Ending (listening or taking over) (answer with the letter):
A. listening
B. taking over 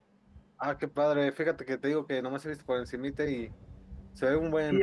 B